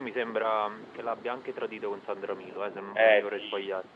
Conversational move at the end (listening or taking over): taking over